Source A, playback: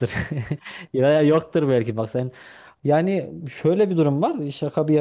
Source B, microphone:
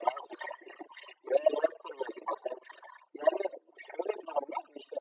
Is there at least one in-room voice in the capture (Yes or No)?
No